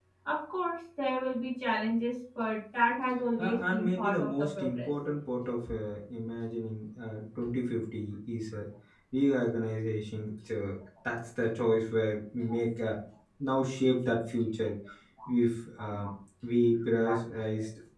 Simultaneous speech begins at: 3 s

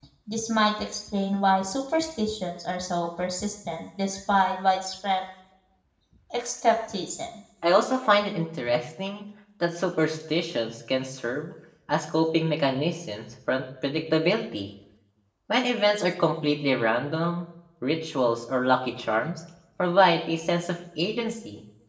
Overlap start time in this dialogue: none

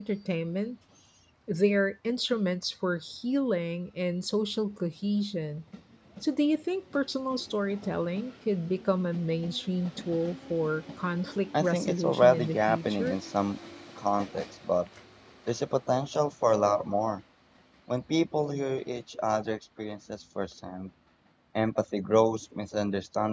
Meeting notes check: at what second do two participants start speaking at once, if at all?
12 s

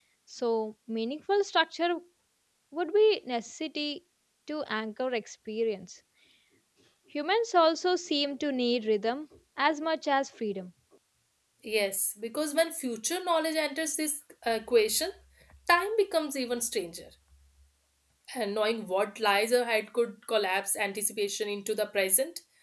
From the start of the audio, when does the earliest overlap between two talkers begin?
none

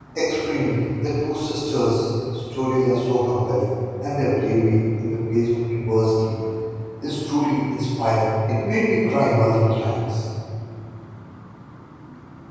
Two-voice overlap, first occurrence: none

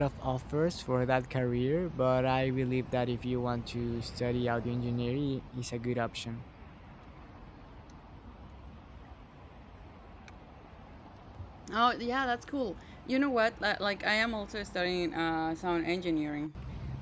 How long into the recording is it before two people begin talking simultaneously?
none

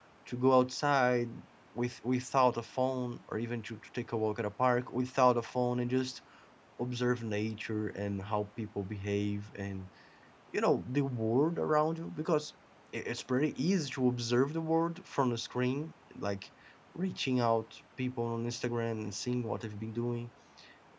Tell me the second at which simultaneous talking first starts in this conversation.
none

